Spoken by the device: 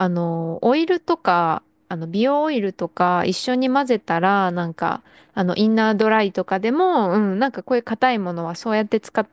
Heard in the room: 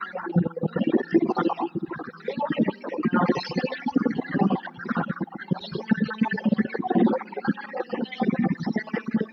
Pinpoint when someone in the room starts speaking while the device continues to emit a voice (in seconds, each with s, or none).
none